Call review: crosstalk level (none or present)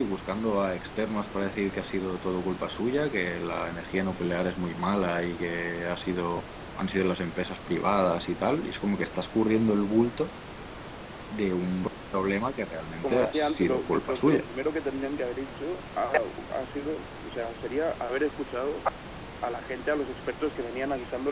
present